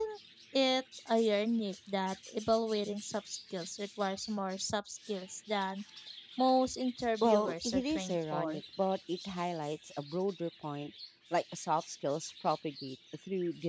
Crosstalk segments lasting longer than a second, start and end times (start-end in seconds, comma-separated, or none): 7.2-8.6